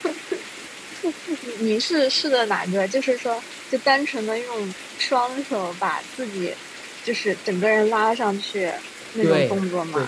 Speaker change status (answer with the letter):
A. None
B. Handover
B